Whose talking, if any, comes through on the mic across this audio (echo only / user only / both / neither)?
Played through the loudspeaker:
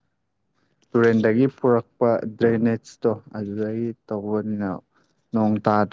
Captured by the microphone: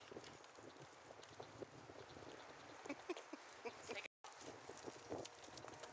neither